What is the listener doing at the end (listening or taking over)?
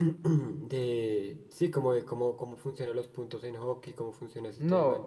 taking over